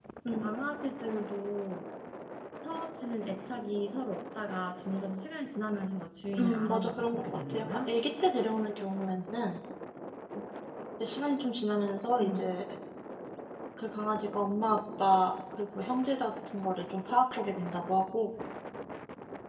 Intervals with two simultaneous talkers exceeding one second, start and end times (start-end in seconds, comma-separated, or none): 6.4-7.9